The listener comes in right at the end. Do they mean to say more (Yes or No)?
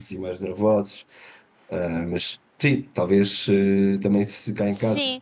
No